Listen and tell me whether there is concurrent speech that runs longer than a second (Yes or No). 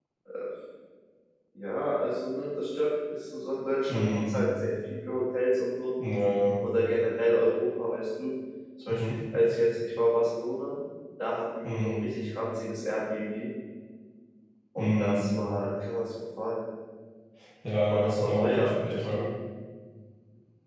Yes